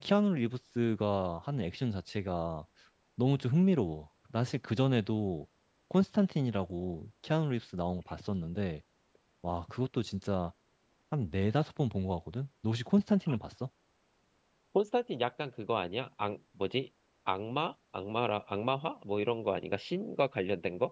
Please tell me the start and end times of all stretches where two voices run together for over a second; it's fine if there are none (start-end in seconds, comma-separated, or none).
none